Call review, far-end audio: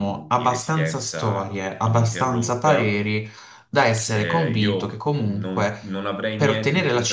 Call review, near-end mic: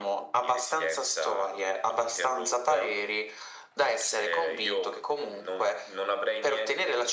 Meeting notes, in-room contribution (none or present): none